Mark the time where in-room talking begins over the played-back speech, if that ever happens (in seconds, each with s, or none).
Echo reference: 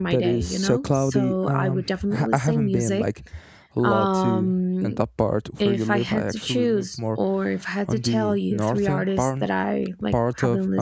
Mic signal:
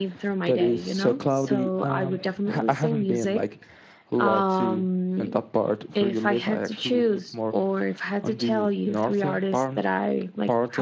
none